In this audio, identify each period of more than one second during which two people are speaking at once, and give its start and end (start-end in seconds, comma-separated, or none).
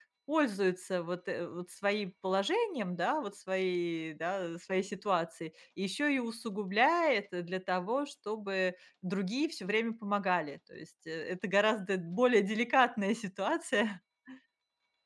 none